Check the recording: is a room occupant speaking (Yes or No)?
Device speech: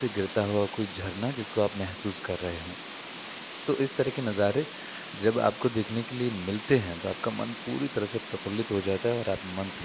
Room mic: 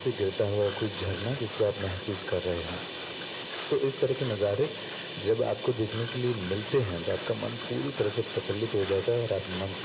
No